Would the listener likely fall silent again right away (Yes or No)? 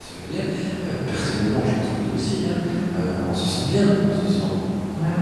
Yes